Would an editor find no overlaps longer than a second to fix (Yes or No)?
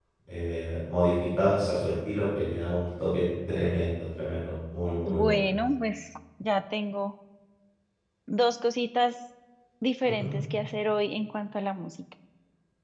Yes